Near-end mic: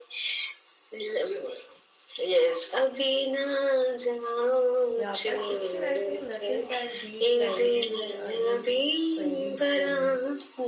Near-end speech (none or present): present